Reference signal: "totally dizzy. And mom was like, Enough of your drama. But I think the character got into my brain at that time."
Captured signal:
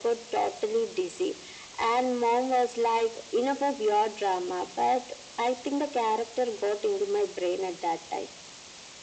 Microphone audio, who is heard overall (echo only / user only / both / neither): echo only